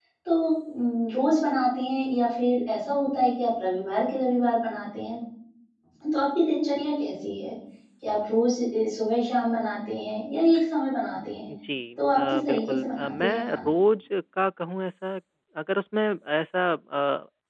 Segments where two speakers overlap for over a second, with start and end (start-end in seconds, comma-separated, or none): 12.2-13.7